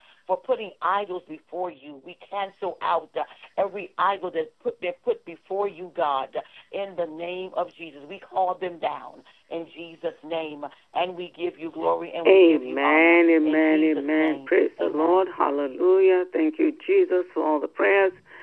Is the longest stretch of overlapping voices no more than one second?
No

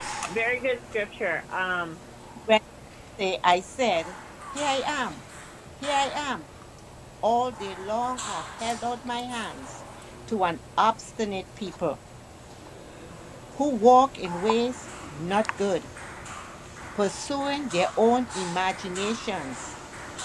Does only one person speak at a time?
Yes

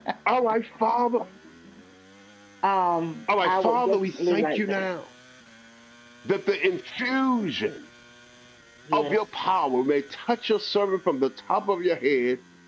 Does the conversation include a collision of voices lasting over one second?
Yes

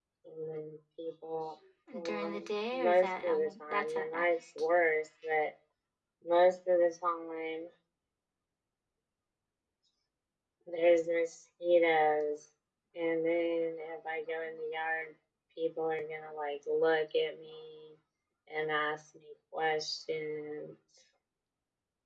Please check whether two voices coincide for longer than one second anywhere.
Yes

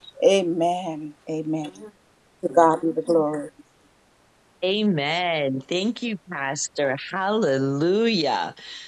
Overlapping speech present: No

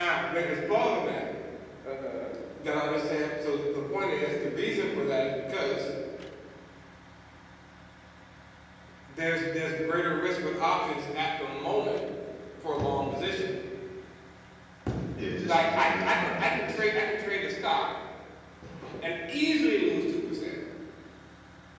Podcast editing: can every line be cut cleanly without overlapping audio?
No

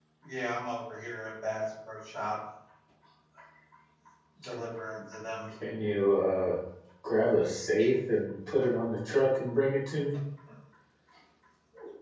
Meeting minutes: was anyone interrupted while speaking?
No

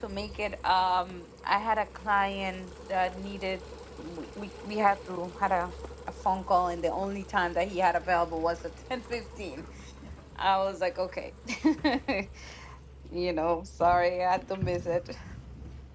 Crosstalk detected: No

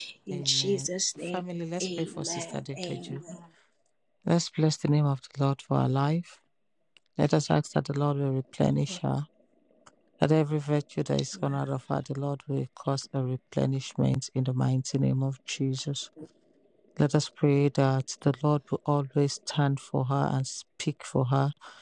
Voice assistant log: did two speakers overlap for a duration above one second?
Yes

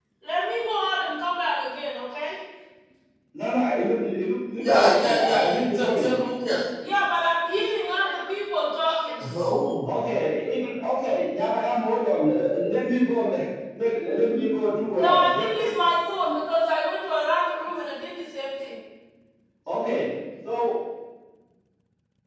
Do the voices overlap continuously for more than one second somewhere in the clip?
Yes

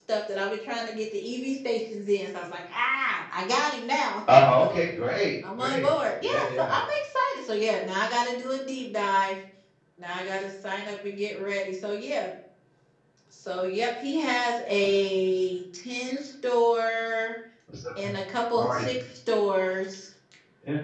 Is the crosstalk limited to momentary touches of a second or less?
Yes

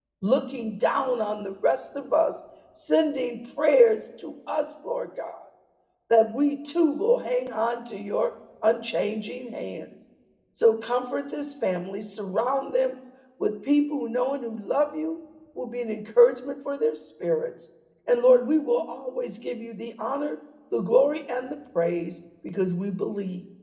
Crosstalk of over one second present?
No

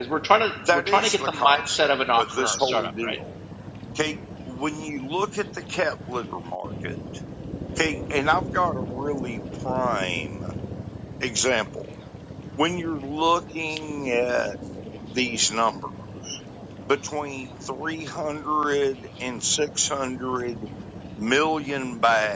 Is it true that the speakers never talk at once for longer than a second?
No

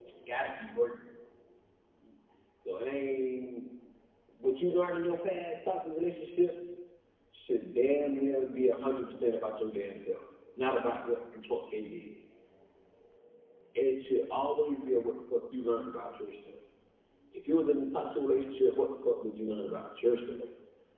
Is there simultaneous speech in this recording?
No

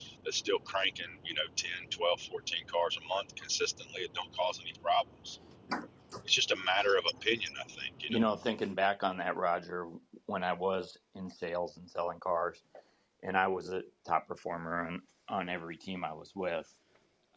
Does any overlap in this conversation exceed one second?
No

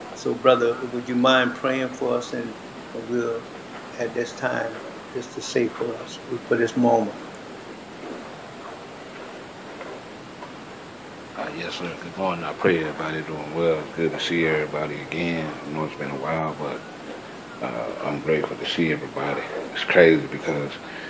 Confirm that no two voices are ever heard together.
Yes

